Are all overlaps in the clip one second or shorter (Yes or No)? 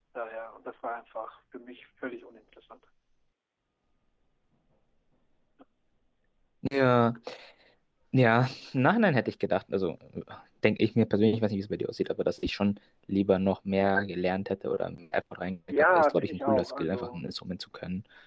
No